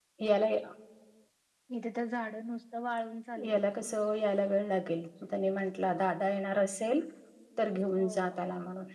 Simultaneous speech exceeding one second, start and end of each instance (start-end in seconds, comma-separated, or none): none